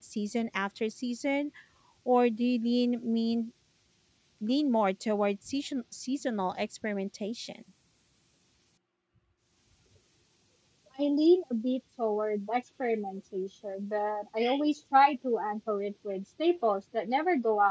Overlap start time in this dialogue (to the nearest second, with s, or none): none